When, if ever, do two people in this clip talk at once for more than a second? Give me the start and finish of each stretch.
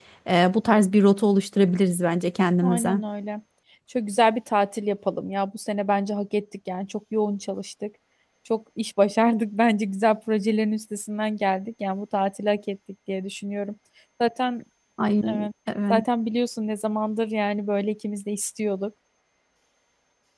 none

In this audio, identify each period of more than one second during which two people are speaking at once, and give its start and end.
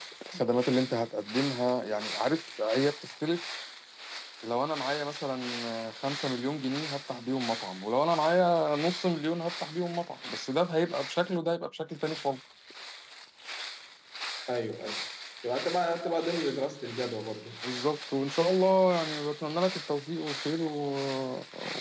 none

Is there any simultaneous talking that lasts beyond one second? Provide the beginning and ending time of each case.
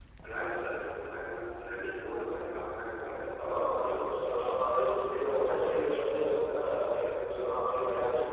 none

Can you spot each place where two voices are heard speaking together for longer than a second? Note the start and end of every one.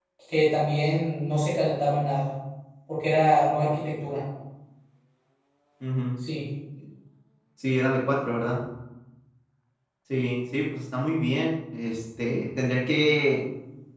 none

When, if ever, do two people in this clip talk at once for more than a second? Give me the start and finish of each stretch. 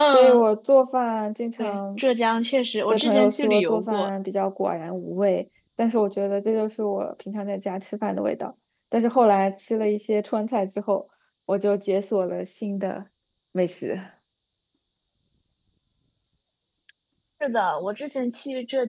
2.9-4.1

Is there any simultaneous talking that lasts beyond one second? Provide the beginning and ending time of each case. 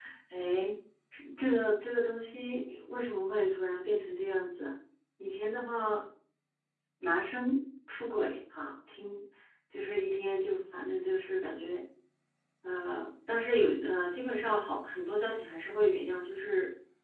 none

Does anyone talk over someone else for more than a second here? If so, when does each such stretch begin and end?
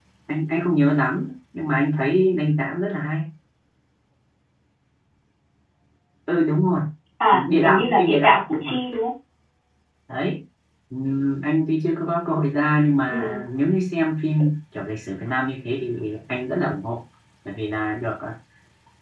7.3-8.7

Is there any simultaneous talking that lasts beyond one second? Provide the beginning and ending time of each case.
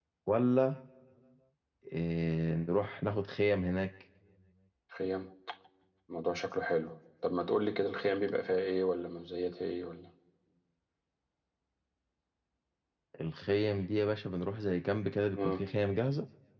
none

